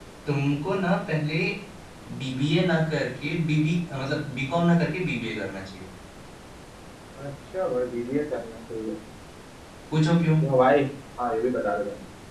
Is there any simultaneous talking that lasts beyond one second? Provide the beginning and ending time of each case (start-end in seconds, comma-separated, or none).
none